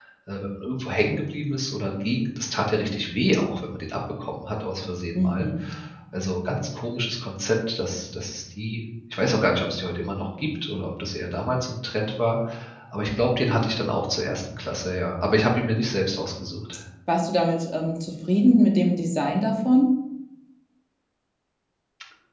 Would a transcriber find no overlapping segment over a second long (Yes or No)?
Yes